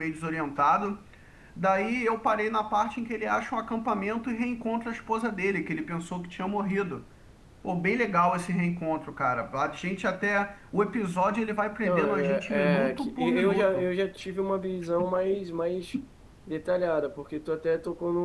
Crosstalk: present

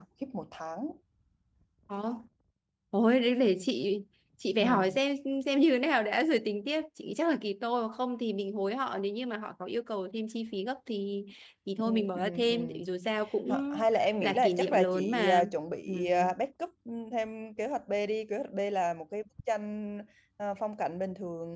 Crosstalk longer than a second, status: present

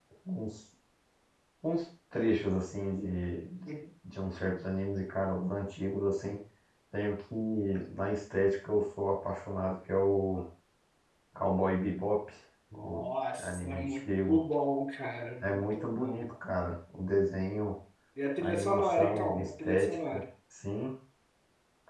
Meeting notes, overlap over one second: present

